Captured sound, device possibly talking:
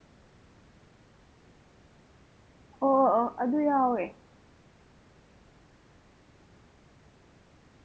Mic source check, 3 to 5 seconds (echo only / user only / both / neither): user only